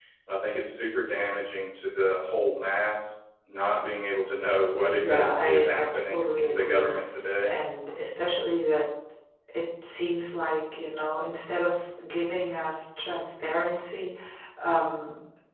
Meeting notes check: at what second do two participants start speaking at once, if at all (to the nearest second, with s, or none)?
5 s